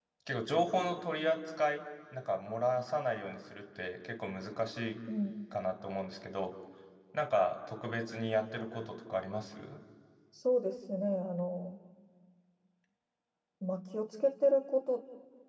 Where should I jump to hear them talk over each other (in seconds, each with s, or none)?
none